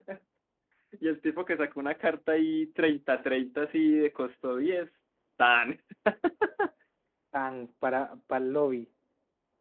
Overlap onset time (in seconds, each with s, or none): none